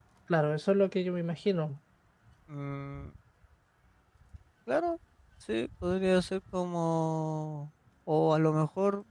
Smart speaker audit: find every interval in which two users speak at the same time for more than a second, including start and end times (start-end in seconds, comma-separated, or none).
none